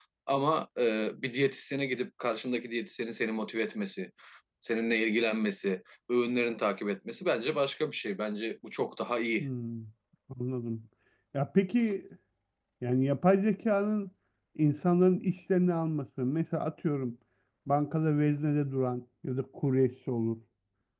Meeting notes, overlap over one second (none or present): none